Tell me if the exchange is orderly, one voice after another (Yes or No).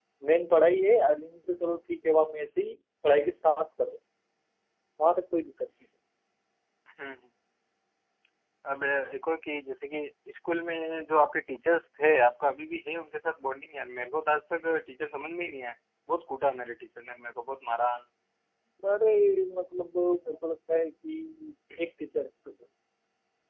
Yes